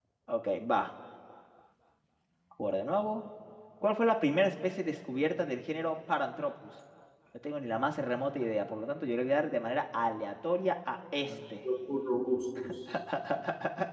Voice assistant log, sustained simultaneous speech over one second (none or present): none